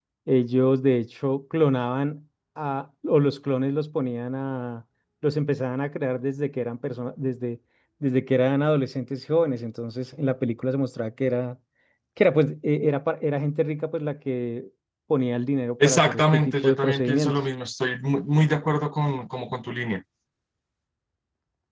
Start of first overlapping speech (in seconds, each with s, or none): 15.8 s